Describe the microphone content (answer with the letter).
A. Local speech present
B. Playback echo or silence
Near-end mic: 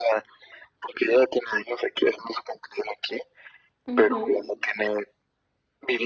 A